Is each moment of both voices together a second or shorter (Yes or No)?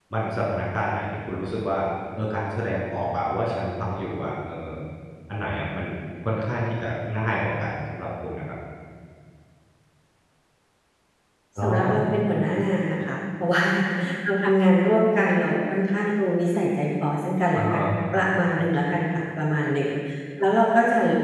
Yes